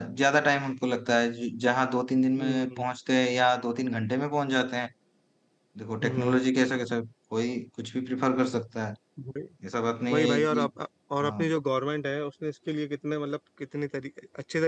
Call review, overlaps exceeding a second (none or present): none